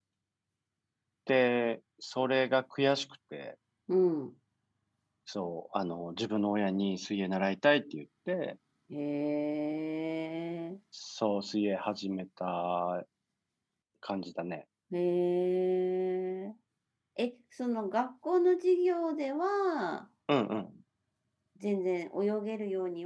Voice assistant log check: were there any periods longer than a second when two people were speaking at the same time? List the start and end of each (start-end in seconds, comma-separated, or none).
none